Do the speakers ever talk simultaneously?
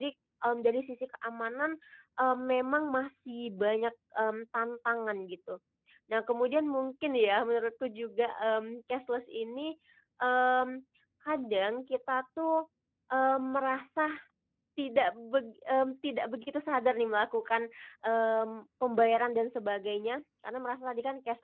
No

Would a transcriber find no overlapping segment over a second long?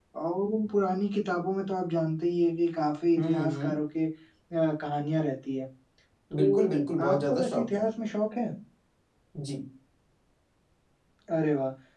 No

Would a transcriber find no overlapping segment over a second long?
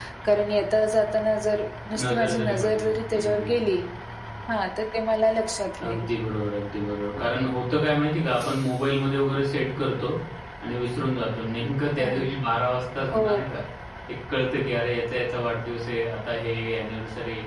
No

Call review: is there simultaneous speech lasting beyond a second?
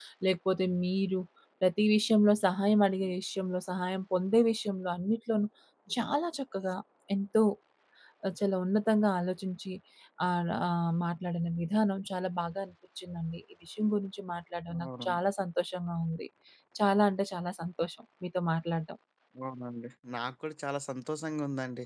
No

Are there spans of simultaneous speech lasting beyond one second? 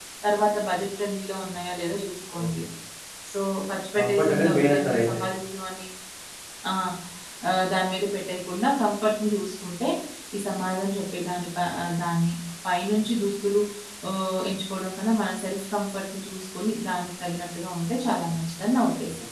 Yes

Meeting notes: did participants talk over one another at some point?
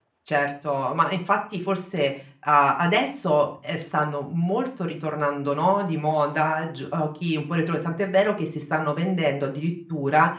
No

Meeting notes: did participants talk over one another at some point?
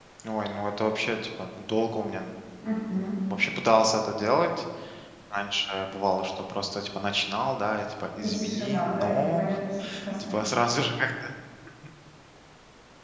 Yes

